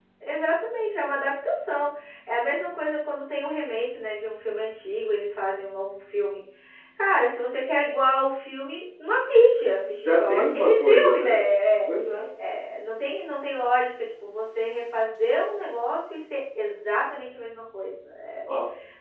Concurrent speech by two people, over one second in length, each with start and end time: 10.0-11.4

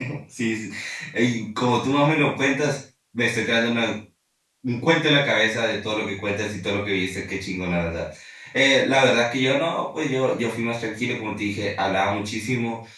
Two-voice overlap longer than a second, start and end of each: none

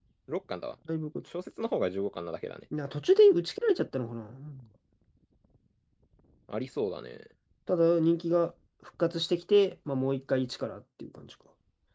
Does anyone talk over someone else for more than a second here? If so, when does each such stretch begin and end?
none

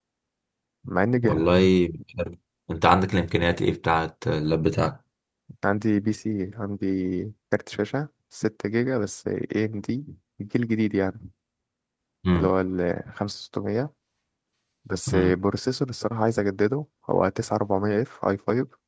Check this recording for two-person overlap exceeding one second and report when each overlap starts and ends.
none

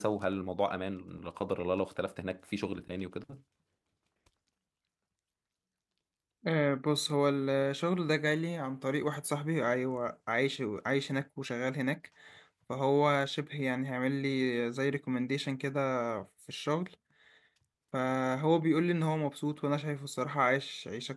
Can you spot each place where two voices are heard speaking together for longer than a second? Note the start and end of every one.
none

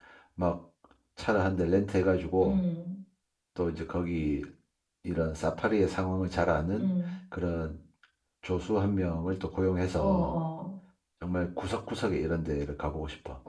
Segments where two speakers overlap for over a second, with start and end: none

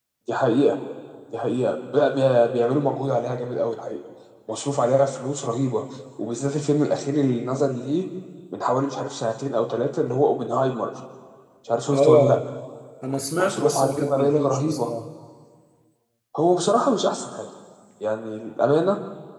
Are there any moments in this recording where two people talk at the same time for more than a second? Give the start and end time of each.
13.4-14.9

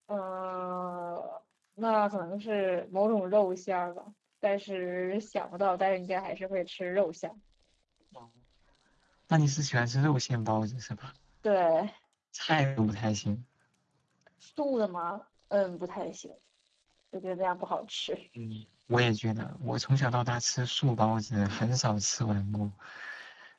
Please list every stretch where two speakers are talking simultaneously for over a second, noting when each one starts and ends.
none

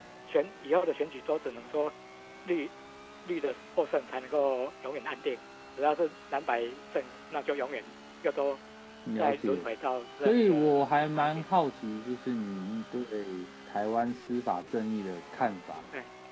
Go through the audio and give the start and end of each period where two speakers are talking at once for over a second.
10.2-11.5

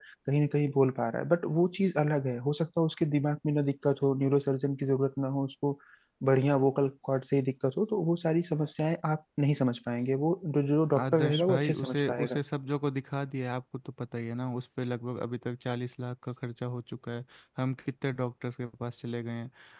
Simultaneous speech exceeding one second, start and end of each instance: 11.0-12.4

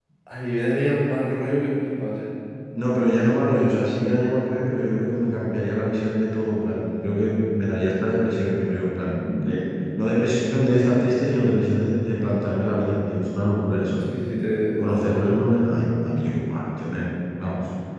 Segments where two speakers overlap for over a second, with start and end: none

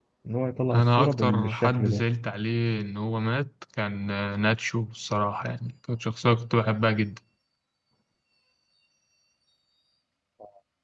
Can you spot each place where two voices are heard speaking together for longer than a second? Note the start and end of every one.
0.8-2.0

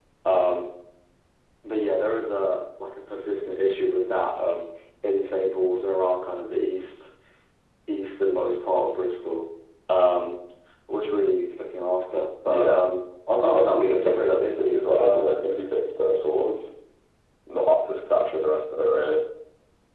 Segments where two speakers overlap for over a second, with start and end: 13.4-15.4

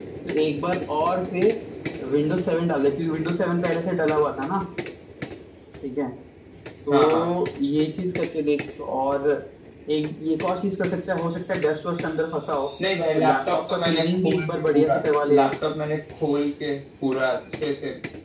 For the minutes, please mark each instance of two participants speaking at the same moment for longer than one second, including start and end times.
13.2-14.9

